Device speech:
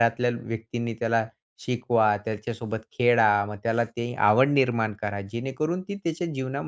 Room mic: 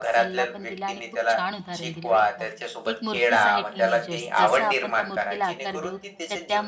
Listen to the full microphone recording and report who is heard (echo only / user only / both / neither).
both